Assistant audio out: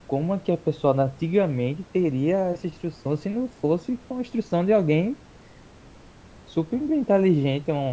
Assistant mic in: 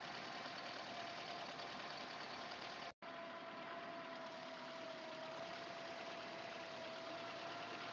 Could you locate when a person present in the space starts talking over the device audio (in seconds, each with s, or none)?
none